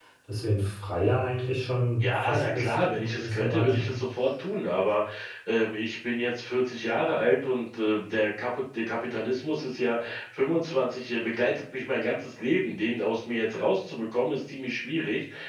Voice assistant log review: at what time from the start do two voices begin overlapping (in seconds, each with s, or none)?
2.0 s